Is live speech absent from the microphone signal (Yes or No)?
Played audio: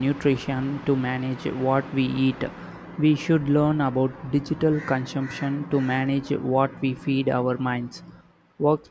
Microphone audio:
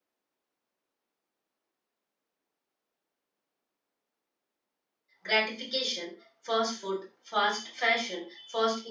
No